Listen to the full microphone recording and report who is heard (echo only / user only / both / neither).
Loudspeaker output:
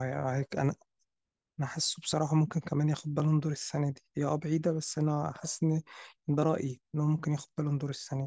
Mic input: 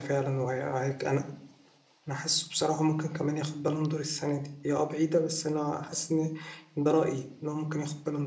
echo only